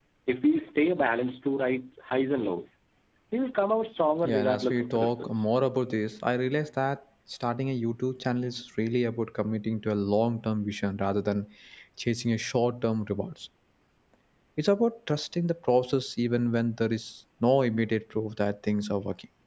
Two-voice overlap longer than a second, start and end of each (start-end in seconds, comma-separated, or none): 4.2-5.4